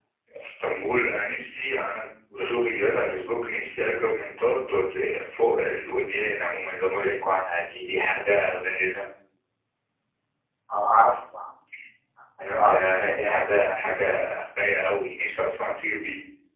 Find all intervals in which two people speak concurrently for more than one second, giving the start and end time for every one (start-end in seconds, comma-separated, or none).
12.4-14.3